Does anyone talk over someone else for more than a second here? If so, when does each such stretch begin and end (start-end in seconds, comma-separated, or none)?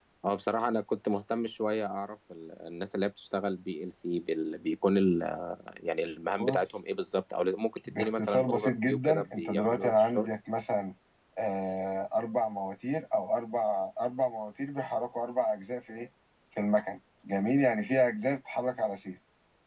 7.9-10.3